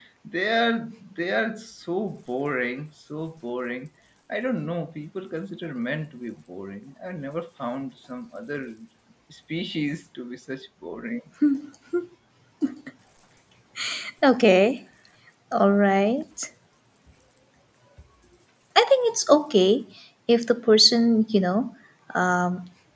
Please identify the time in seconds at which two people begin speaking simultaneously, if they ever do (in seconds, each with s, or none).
none